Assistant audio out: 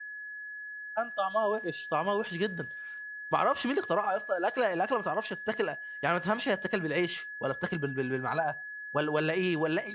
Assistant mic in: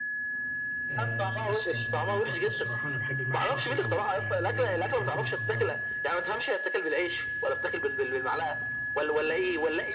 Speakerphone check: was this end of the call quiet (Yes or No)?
No